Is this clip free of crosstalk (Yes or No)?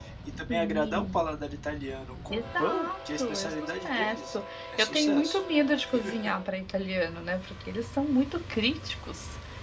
No